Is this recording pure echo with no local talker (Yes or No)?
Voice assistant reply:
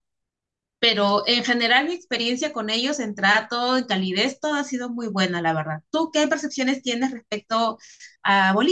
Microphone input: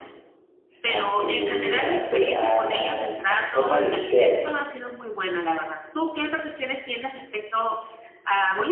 No